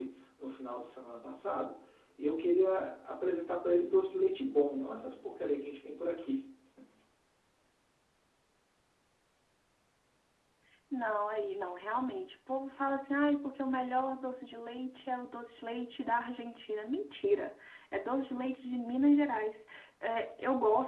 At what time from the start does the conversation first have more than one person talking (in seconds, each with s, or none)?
none